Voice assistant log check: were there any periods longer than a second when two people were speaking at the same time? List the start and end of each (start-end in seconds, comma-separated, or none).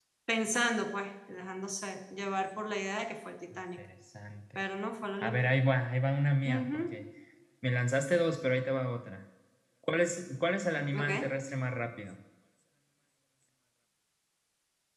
none